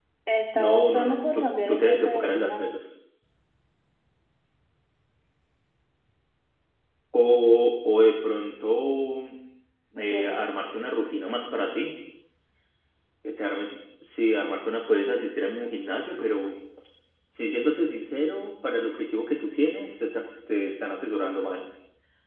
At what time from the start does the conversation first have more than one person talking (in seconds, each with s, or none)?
0.5 s